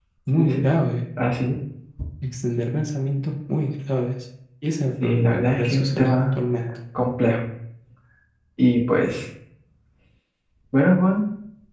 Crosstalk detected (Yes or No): Yes